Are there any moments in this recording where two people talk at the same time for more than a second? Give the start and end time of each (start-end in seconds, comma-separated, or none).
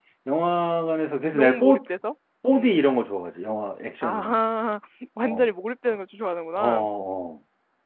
none